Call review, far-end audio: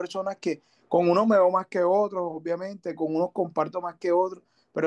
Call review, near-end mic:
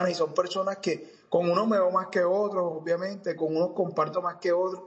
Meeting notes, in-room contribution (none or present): none